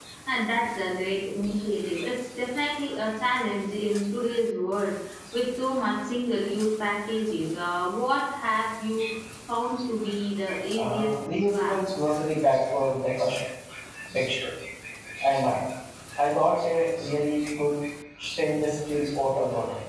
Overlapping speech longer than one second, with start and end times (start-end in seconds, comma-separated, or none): 10.7-12.1